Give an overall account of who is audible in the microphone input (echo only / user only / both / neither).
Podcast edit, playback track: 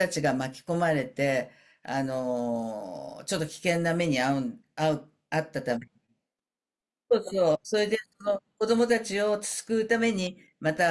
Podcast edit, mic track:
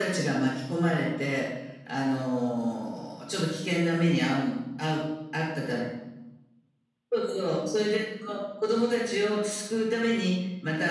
echo only